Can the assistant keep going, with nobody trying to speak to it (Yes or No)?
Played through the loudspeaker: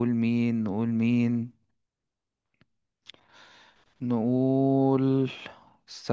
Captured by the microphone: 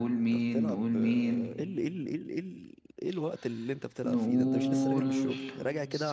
No